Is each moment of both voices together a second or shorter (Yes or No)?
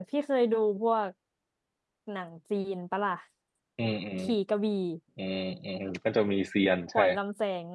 Yes